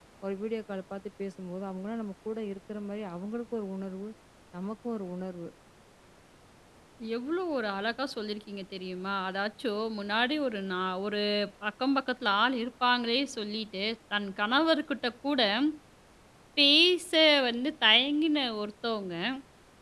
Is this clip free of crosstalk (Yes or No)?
Yes